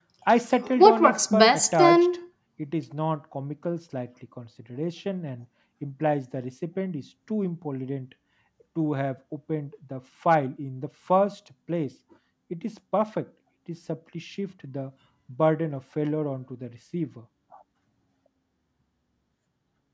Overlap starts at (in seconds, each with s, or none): 0.8 s